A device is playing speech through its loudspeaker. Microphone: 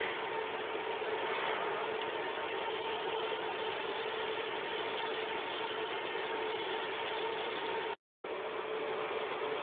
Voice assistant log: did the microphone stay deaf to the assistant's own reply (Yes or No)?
Yes